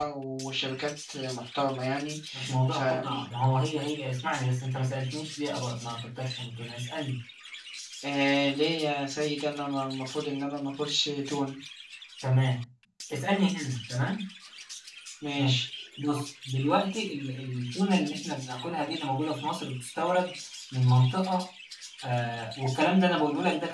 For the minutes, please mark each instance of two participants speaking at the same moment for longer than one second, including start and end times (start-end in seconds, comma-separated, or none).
none